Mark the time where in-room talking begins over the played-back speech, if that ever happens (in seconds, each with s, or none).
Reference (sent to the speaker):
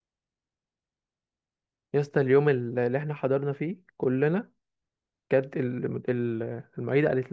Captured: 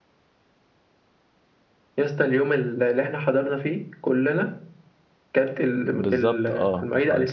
5.8 s